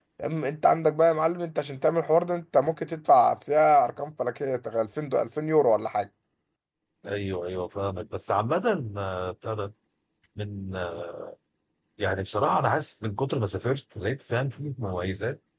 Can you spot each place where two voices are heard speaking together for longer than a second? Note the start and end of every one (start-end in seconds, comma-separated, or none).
none